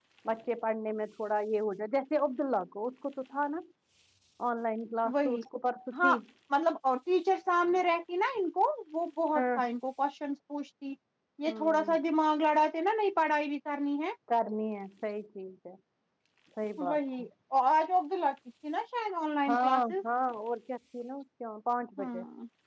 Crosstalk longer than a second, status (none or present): none